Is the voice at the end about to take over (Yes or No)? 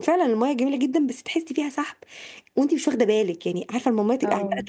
No